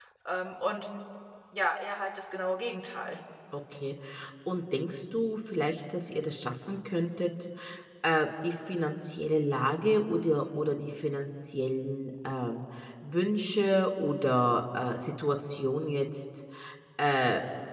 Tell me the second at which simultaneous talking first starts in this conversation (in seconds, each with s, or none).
none